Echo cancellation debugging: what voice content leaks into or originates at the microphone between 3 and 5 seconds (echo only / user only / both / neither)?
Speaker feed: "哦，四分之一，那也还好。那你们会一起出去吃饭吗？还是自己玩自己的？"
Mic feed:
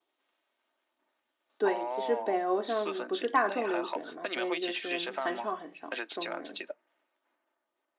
both